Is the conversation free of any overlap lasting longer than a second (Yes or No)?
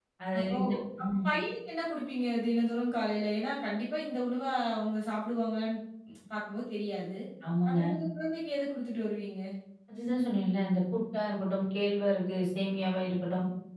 Yes